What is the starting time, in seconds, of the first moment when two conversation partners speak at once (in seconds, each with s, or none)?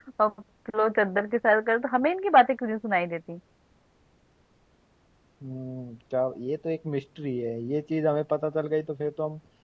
none